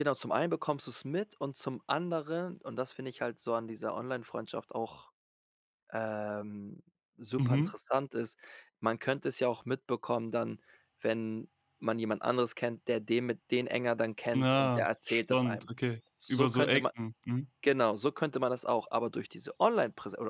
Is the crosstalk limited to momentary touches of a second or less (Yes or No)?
No